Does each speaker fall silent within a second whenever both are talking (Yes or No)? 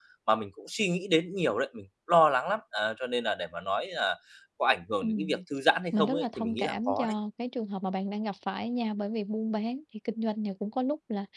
No